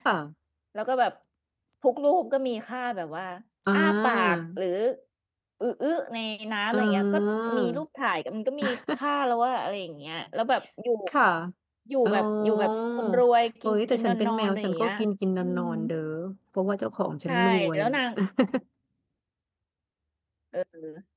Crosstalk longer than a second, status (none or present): present